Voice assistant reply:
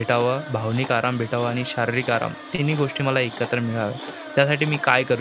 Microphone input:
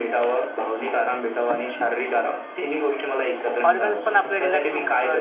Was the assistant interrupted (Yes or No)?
Yes